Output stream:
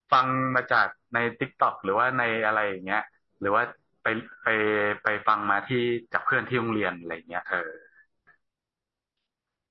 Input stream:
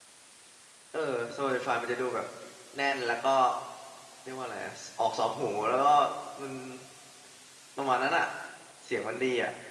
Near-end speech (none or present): present